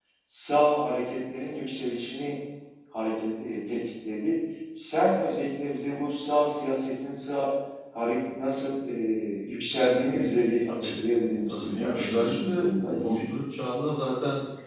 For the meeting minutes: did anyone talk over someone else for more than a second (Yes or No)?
Yes